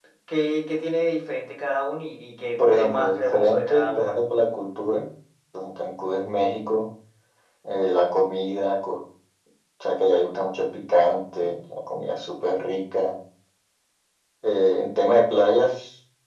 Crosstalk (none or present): present